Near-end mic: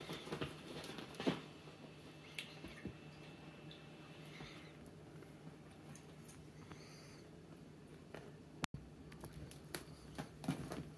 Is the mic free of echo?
Yes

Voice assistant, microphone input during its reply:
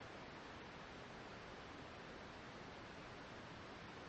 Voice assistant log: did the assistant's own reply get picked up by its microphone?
No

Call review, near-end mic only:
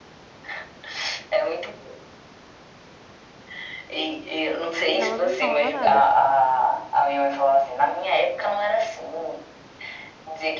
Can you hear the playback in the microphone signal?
Yes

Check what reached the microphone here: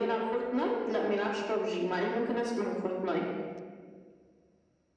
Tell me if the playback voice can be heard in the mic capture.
Yes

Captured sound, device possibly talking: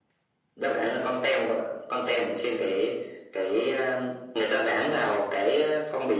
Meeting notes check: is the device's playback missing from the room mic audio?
No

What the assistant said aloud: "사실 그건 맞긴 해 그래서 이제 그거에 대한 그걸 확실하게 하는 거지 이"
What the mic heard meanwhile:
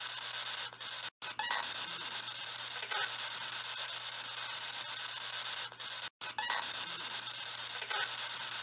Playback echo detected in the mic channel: No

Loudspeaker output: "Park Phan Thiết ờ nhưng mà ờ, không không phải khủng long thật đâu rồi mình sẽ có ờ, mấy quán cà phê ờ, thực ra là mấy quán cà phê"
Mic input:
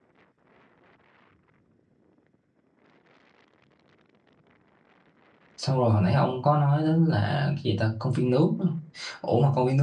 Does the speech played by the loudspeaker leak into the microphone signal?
No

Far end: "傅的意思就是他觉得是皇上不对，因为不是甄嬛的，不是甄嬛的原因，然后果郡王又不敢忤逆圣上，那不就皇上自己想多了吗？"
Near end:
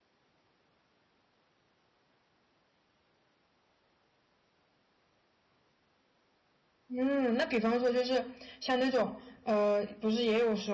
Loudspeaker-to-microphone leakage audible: No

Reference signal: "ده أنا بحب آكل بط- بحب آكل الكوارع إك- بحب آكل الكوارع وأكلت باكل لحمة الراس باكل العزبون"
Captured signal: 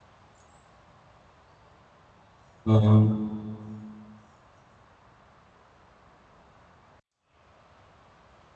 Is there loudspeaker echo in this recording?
No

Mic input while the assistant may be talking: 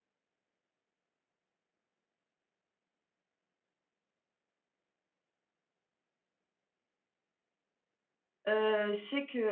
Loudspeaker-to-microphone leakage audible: No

